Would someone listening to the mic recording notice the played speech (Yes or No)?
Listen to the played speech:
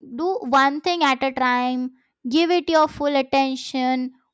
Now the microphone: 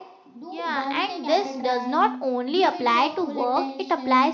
Yes